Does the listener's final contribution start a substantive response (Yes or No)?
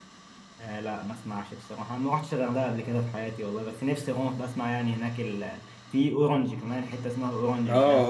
Yes